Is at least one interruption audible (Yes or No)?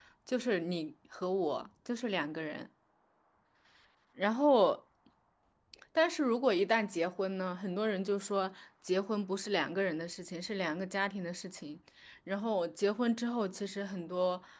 No